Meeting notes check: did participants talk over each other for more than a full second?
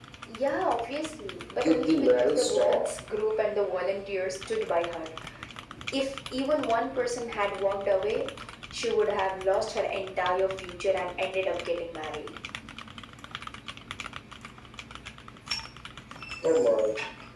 Yes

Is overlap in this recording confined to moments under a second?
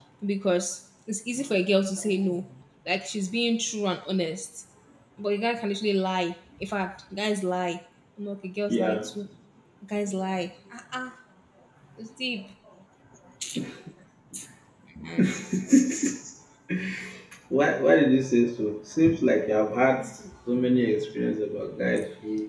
Yes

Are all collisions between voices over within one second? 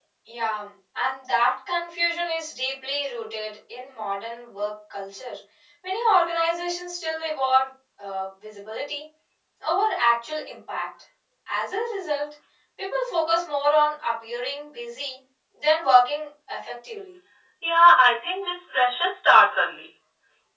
Yes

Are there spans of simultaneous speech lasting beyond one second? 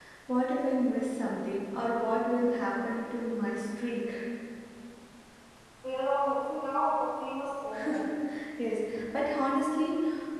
No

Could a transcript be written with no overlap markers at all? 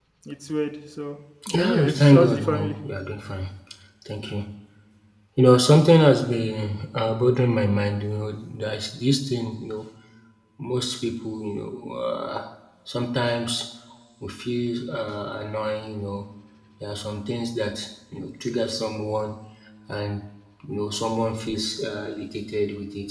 No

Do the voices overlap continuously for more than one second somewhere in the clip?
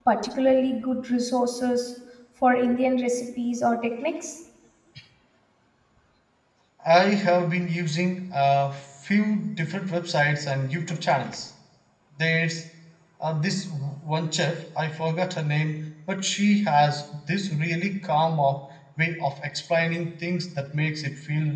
No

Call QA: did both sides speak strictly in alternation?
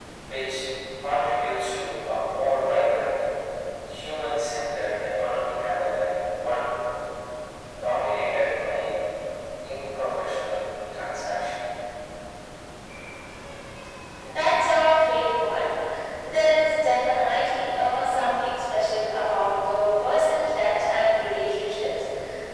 Yes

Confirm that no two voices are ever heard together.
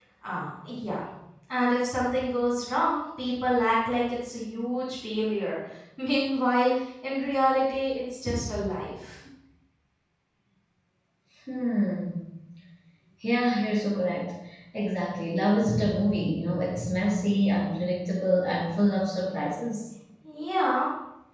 Yes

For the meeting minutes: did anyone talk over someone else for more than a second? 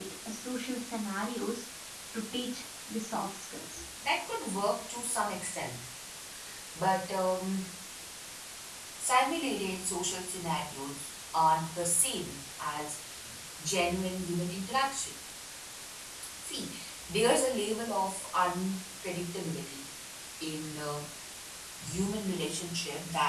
No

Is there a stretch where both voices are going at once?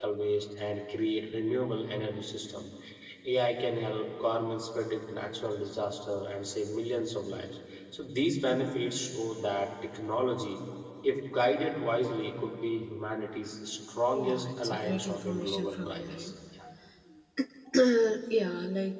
Yes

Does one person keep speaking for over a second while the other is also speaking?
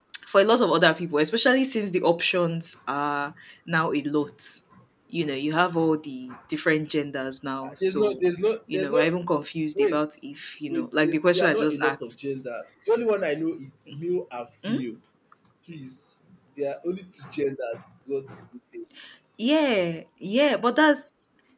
Yes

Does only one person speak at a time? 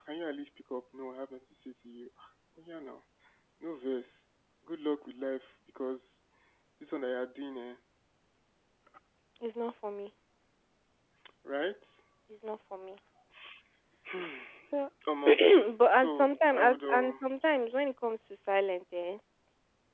No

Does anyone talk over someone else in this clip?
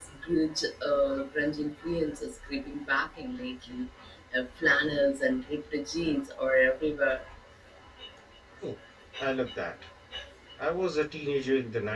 No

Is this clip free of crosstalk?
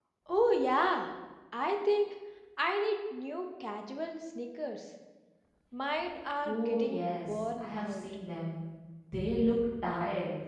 No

